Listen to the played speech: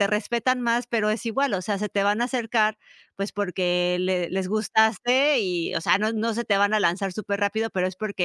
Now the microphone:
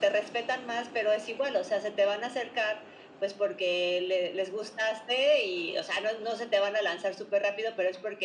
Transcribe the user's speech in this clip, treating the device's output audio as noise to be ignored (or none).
none